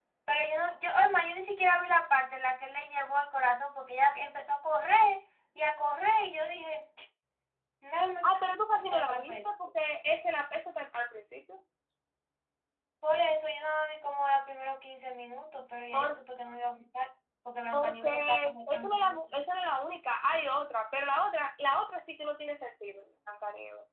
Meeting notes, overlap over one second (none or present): present